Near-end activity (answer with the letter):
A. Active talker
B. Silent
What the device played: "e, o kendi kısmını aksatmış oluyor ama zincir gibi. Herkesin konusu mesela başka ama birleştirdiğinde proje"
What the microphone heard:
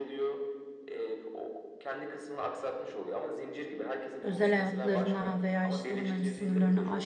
A